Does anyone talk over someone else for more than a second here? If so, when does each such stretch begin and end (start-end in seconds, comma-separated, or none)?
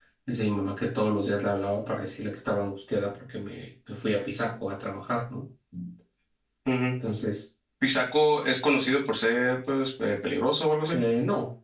none